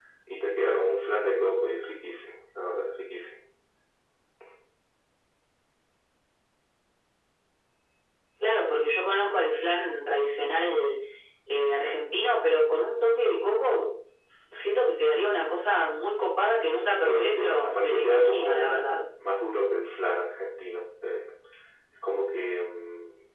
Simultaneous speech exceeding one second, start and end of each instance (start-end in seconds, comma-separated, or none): 16.9-18.8